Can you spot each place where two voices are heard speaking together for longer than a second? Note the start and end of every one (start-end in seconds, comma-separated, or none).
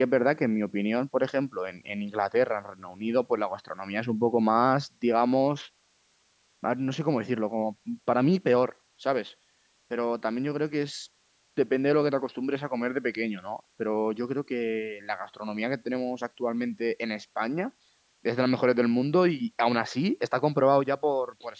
none